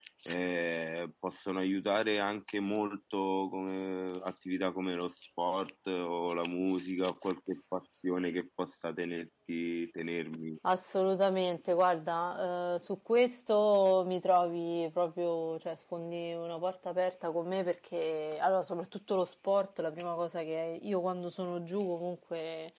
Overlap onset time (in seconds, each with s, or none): none